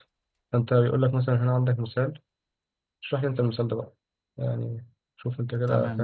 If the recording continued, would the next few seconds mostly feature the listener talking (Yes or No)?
Yes